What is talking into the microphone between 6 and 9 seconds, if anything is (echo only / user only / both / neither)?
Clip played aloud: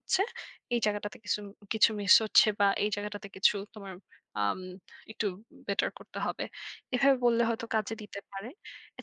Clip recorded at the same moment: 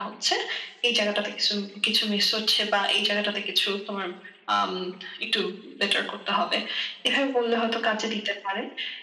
echo only